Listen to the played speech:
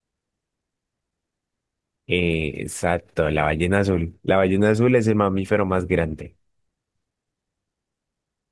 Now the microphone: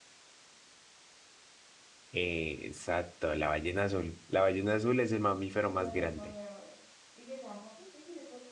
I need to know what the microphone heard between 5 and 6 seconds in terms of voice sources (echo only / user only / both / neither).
both